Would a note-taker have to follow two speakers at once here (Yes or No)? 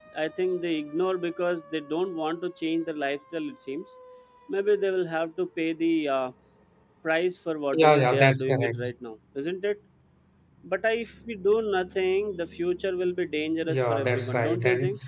Yes